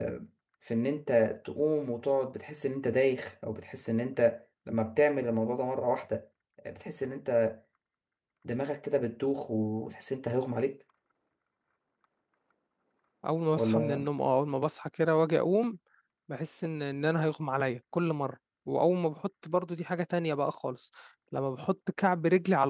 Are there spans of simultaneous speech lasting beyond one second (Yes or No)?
No